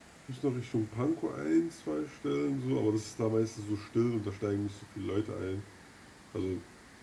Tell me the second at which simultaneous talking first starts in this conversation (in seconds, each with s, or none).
none